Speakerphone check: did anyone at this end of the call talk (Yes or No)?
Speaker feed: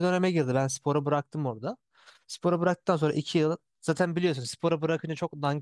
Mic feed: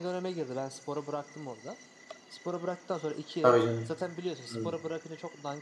Yes